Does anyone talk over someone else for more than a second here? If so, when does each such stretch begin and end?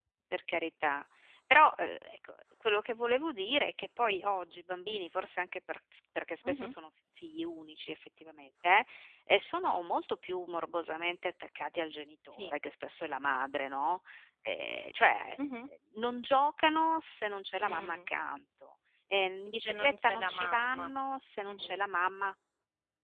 19.6-20.9

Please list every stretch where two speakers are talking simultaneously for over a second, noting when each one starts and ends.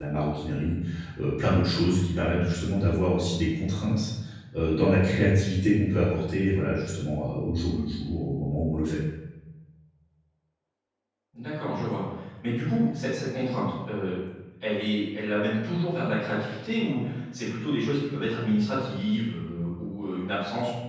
none

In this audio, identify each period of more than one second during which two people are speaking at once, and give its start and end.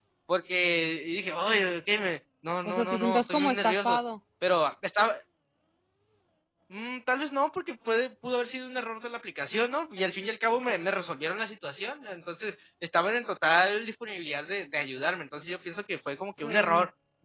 2.7-4.0

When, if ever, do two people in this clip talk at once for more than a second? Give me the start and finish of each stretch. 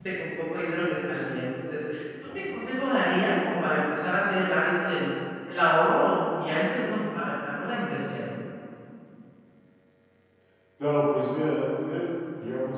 none

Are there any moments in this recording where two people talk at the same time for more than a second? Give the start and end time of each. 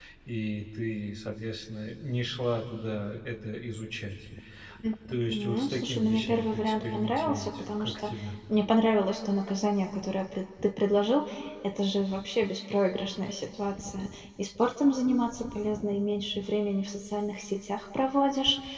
5.3-8.1

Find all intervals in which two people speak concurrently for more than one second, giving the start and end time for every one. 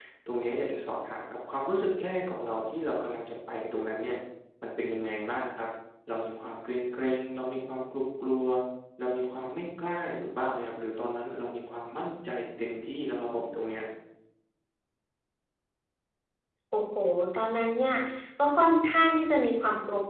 none

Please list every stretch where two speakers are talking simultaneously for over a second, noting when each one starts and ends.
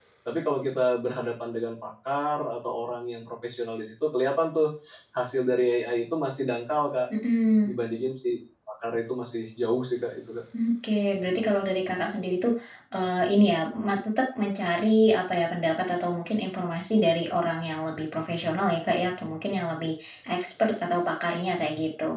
none

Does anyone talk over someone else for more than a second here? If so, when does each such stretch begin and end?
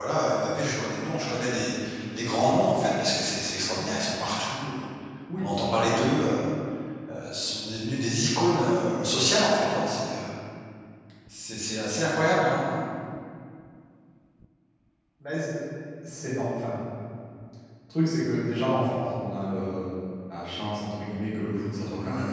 none

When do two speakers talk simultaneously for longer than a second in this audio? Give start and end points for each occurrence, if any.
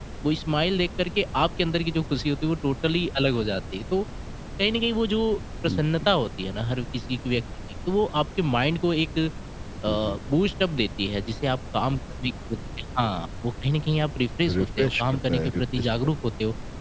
14.6-16.1

